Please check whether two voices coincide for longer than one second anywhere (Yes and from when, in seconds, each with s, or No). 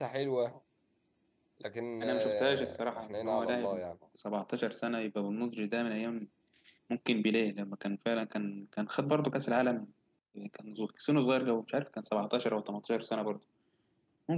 Yes, from 2.0 s